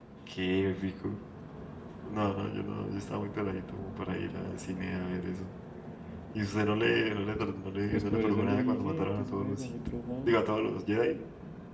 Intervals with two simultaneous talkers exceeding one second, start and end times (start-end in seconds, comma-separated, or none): 7.9-9.7